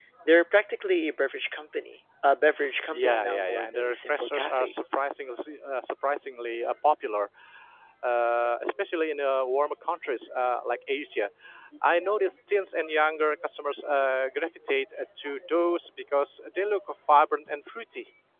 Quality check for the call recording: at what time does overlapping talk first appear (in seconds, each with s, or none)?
2.9 s